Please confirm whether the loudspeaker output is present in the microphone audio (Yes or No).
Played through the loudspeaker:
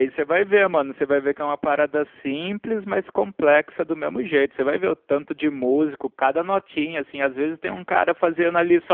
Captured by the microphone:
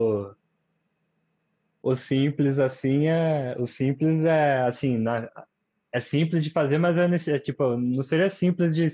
No